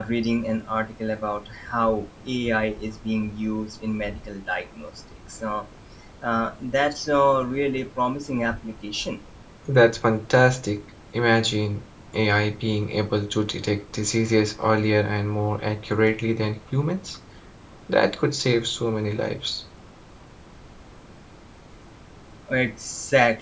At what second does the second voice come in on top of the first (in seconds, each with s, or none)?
none